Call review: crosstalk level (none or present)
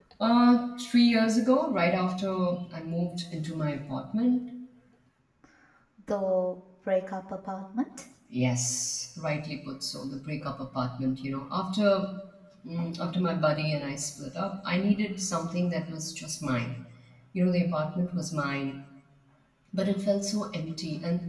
none